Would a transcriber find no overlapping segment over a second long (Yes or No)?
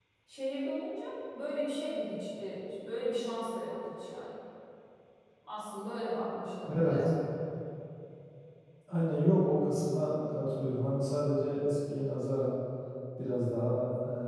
Yes